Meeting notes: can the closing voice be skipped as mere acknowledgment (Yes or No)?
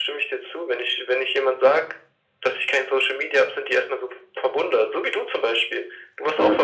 Yes